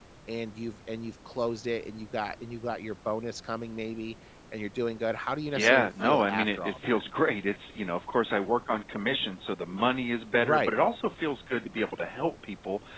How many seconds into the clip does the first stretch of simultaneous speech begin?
6 s

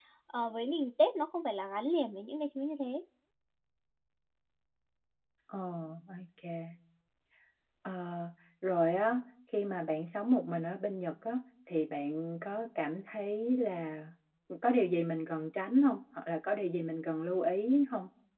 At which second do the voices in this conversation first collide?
none

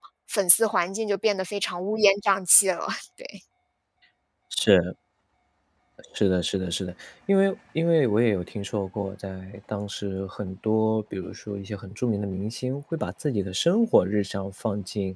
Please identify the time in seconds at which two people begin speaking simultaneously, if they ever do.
none

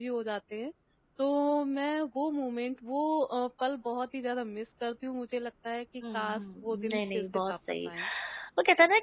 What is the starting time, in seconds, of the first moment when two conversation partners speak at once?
6 s

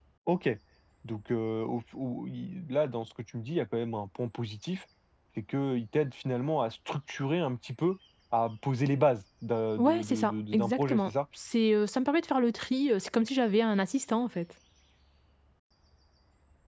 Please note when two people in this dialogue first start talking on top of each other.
10 s

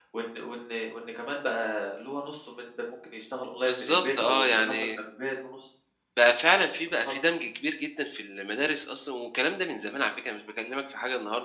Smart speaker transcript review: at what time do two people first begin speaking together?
4 s

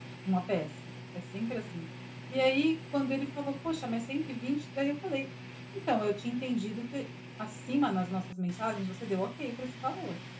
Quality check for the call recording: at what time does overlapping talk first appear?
none

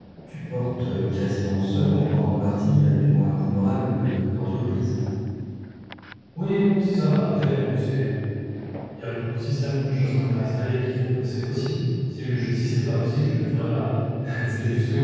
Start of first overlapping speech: none

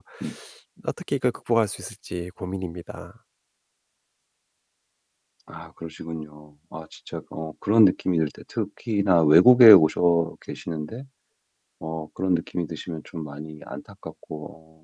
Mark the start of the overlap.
none

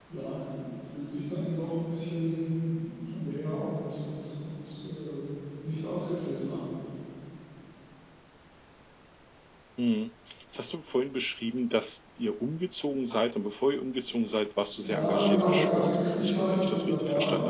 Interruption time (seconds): 15 s

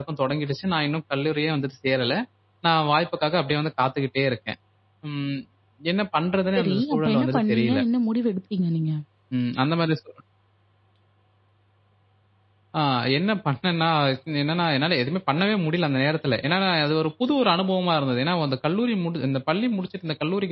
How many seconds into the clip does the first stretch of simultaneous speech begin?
7 s

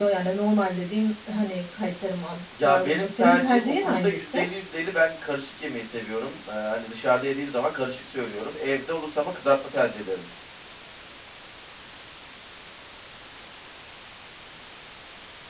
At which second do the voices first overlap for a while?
3 s

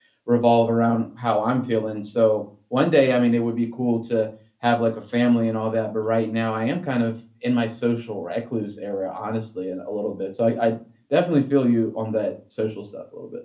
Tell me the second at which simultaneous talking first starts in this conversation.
none

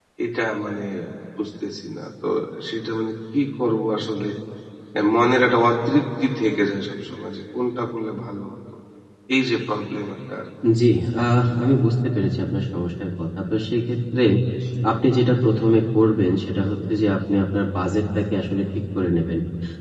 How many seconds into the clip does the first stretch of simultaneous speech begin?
none

